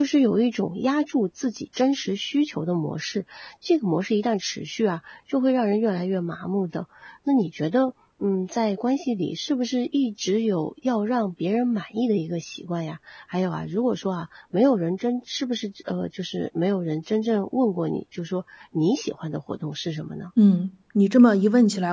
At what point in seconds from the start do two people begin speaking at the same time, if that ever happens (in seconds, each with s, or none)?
none